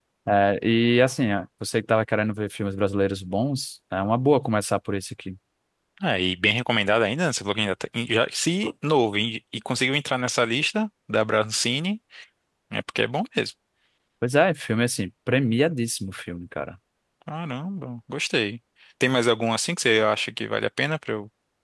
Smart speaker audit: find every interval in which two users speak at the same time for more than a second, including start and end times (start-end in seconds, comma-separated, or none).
none